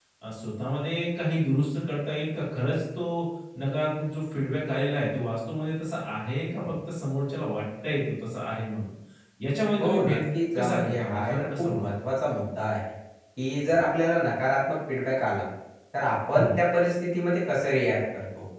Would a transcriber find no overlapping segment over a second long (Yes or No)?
No